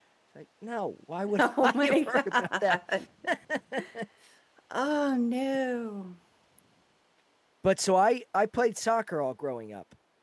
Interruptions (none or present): present